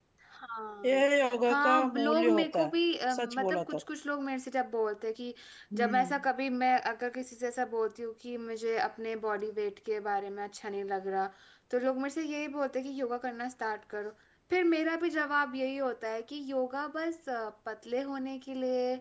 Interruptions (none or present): present